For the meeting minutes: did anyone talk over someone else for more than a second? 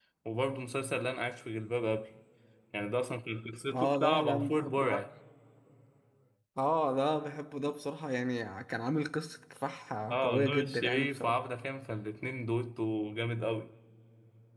Yes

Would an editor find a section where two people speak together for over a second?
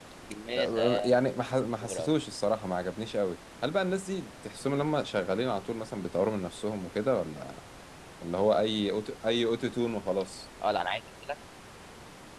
No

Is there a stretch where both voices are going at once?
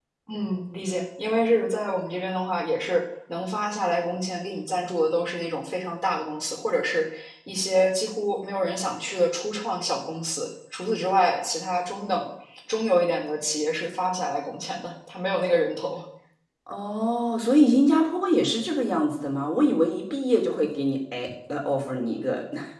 No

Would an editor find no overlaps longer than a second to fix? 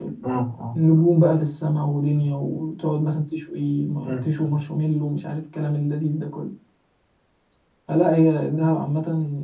Yes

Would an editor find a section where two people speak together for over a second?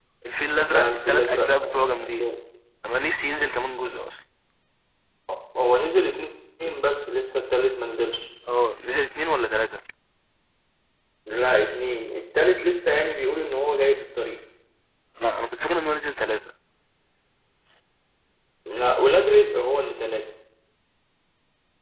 Yes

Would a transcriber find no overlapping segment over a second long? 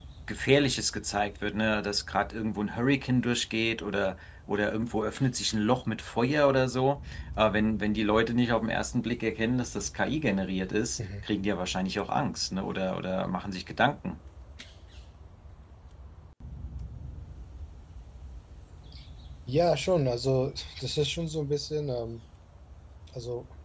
Yes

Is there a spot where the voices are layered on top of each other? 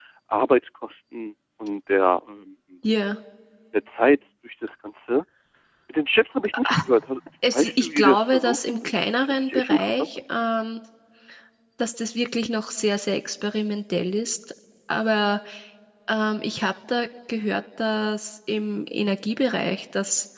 Yes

